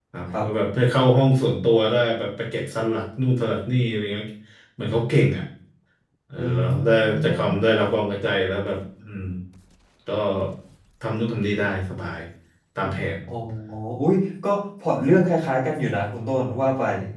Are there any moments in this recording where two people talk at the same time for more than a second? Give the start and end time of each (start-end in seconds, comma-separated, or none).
6.4-7.8